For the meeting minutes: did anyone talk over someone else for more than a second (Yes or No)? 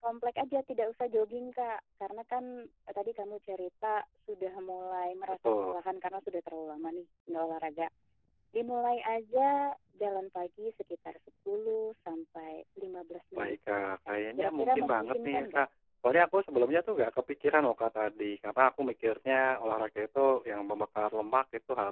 Yes